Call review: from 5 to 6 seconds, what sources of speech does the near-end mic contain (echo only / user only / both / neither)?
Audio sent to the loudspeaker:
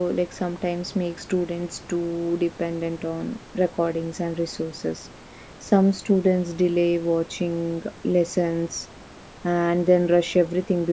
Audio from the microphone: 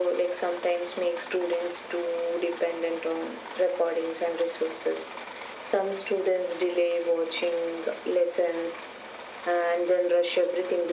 echo only